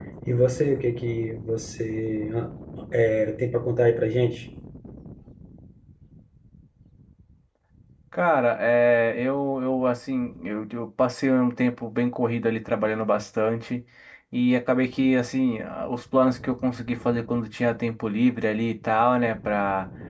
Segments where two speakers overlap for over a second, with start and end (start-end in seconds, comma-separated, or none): none